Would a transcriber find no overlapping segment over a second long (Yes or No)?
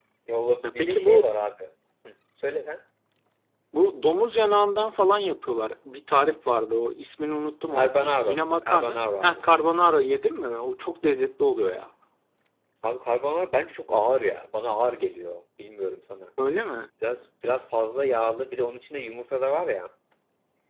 No